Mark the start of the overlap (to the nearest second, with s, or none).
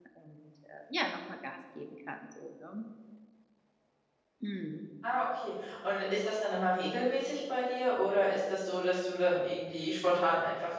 none